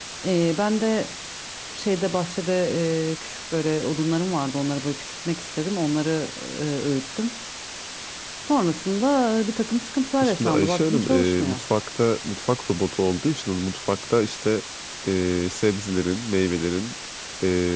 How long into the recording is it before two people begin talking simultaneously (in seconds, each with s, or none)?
10.2 s